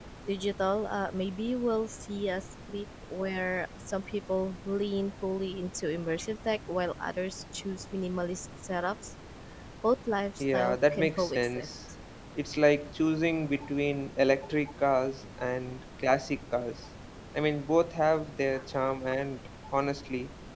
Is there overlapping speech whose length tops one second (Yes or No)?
Yes